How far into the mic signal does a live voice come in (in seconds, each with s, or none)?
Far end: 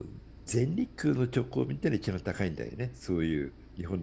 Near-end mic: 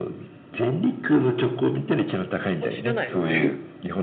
2.5 s